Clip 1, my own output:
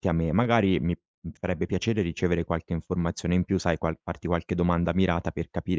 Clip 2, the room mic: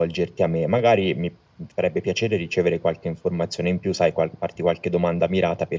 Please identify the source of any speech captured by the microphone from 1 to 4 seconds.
echo only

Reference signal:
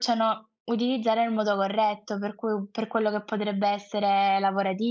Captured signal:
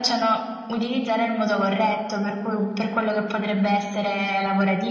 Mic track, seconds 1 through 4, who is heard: echo only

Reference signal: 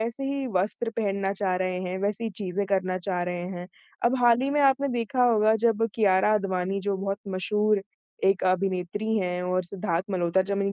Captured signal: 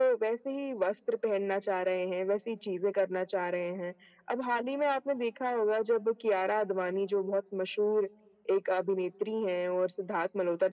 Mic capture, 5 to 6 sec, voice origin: echo only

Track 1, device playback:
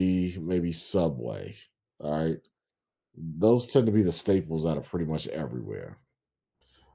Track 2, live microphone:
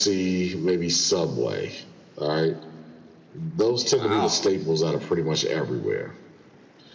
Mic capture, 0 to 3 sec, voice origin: echo only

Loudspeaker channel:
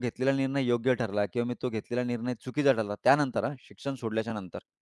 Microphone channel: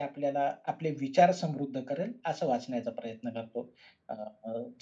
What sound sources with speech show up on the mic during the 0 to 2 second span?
user only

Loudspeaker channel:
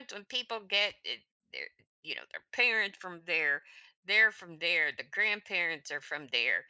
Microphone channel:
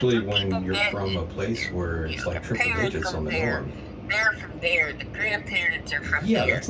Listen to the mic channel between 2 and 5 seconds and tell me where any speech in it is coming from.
both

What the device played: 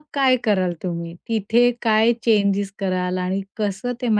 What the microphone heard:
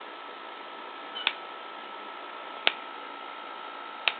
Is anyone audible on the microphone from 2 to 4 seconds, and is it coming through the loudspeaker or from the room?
neither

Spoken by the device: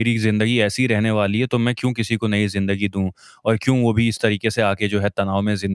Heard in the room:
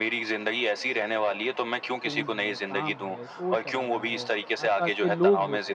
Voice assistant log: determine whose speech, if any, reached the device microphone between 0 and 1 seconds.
echo only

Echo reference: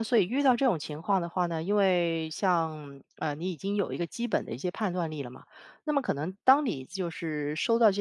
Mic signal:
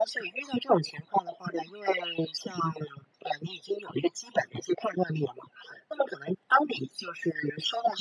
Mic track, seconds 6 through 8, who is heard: echo only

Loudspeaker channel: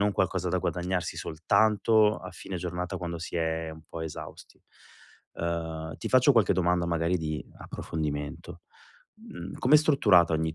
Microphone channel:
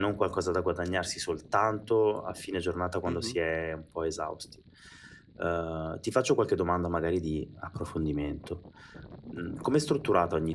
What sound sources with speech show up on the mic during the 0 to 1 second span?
echo only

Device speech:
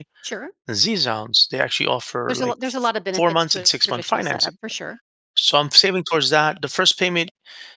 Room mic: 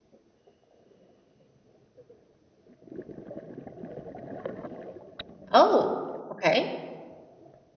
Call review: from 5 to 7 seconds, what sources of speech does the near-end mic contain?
user only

